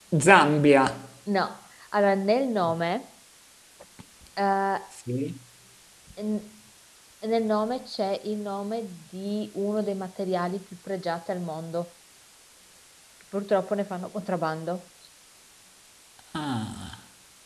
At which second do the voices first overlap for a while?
none

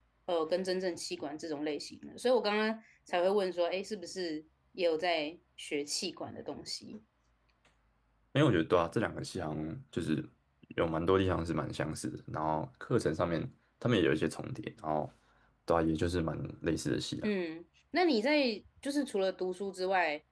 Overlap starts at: none

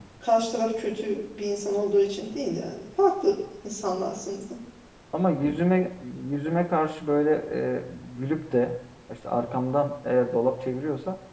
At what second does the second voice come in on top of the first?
none

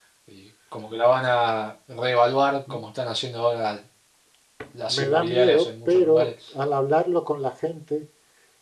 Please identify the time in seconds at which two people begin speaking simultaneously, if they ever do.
4.9 s

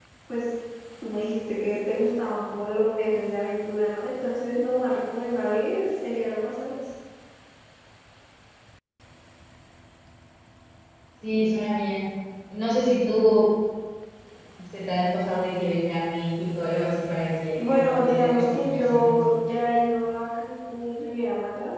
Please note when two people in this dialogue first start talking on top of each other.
17.6 s

